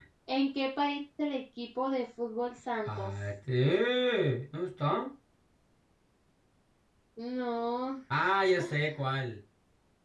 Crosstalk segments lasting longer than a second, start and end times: none

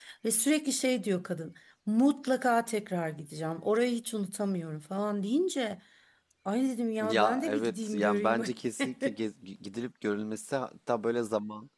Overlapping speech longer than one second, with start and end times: 7.0-8.4

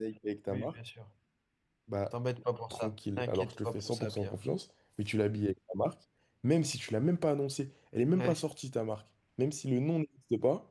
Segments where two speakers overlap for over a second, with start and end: 2.7-4.3

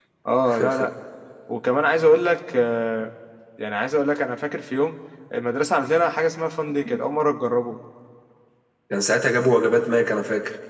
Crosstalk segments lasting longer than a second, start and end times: none

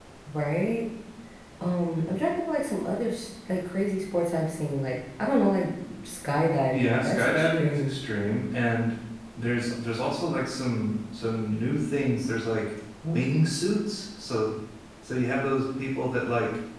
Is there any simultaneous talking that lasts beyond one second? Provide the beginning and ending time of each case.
6.7-8.0

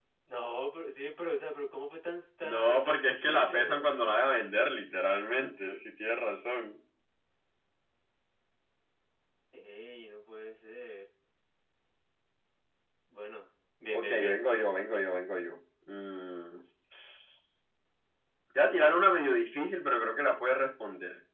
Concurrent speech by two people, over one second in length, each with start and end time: 2.4-3.9

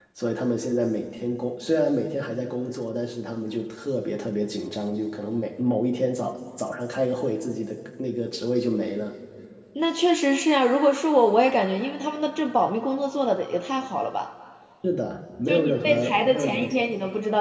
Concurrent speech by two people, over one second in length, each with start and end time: 15.5-16.9

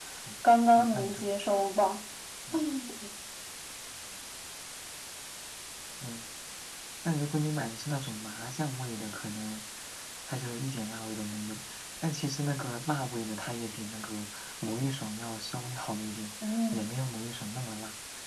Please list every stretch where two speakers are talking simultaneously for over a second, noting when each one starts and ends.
none

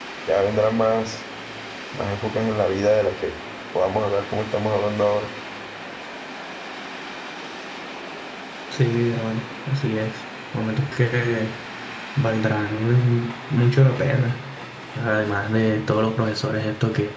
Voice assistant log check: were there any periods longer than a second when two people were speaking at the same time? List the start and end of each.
none

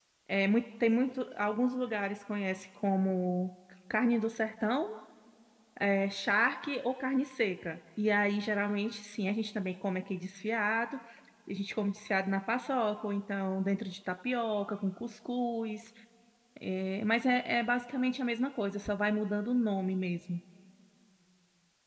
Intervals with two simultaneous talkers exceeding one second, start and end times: none

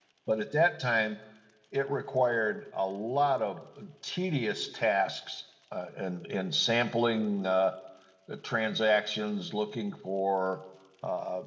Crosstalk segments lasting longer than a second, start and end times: none

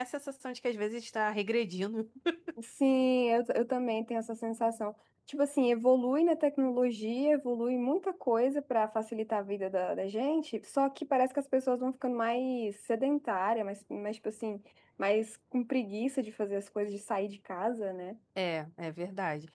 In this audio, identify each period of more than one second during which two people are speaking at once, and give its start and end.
none

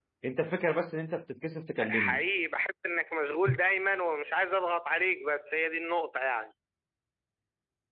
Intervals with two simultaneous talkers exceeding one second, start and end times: none

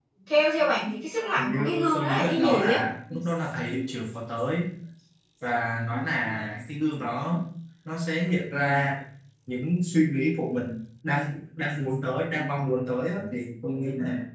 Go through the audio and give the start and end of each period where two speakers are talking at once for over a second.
1.4-2.8

